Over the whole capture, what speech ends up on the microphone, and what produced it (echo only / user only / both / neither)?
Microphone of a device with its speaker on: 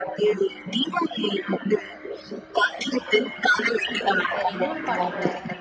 both